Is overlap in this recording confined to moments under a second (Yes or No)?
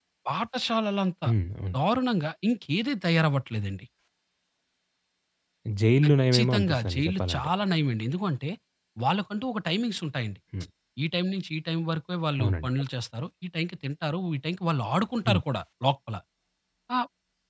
No